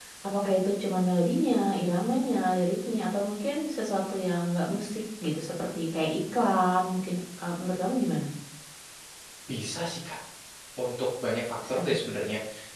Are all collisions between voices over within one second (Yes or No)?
Yes